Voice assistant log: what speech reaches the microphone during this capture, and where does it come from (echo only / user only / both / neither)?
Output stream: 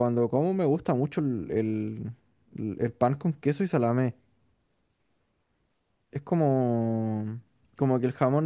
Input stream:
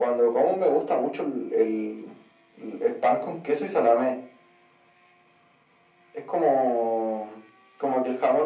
echo only